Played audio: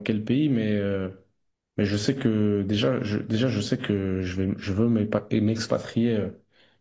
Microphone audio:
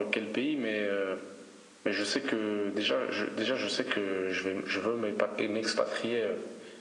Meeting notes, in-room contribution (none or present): none